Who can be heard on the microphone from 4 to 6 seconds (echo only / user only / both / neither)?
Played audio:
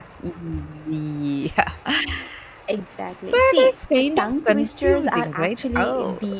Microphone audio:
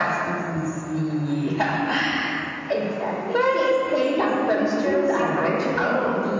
echo only